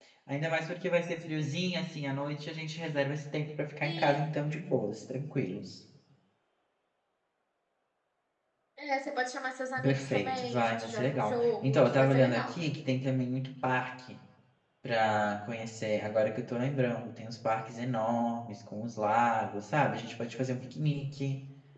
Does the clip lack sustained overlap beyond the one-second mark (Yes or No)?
No